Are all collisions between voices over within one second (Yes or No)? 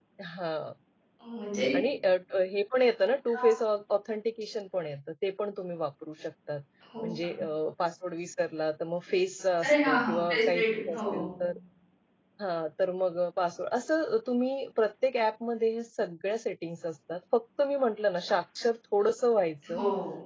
No